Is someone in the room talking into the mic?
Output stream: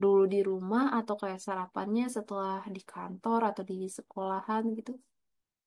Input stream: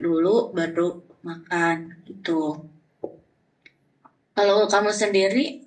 Yes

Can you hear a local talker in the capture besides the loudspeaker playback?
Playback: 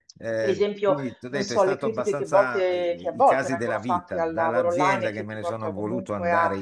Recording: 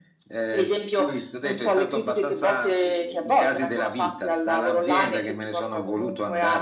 No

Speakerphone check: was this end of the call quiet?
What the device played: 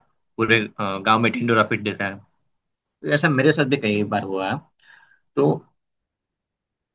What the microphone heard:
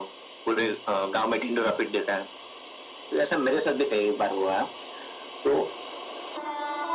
Yes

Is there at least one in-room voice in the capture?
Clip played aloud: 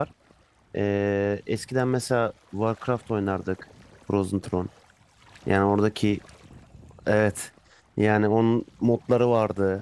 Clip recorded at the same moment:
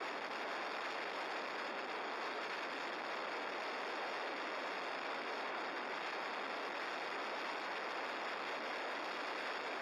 No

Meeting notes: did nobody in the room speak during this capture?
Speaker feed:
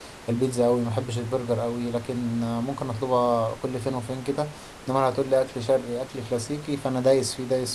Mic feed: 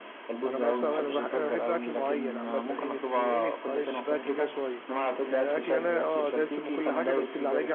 No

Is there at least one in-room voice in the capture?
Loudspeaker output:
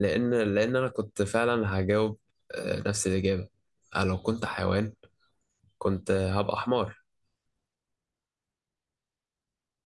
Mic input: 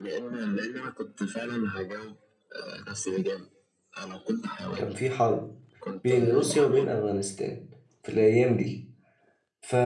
Yes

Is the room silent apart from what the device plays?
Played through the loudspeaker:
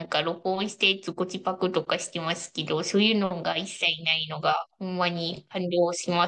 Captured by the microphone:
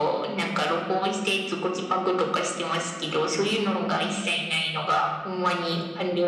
Yes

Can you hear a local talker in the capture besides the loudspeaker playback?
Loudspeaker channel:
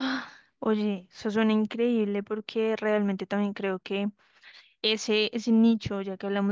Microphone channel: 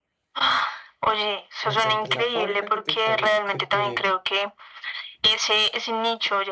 Yes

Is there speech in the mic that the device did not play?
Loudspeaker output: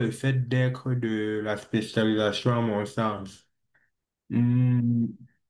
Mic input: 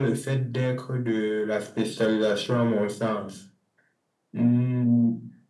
No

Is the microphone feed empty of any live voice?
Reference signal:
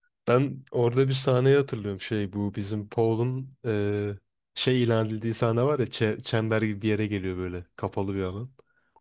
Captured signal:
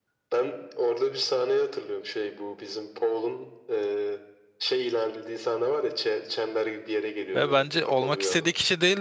No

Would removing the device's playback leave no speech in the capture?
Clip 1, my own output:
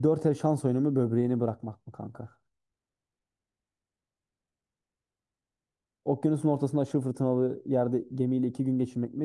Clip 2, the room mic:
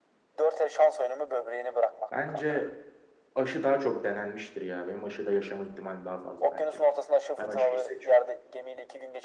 No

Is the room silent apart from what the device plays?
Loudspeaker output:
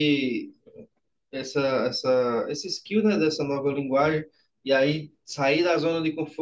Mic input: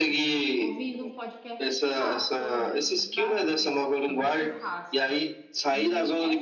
No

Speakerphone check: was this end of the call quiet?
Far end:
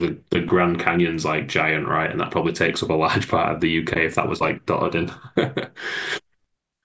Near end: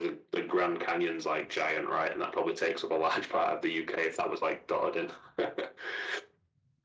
Yes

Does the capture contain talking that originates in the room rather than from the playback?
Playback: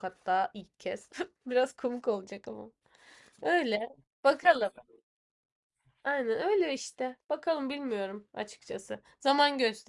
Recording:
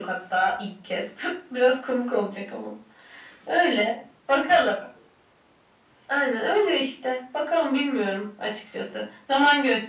No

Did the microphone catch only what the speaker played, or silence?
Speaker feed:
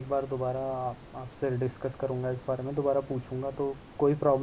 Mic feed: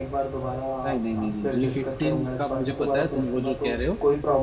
No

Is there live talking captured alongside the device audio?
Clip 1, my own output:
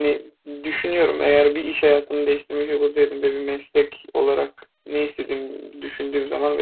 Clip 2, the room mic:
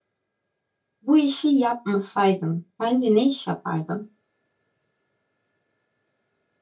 Yes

